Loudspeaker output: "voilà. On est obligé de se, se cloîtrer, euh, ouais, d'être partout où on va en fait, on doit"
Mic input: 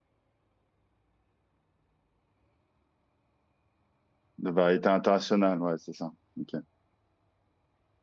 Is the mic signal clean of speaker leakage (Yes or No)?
Yes